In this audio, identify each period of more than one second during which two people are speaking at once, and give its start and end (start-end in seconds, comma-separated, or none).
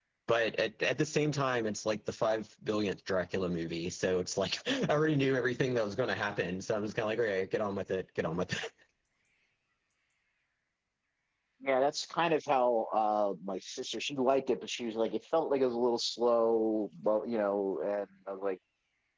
none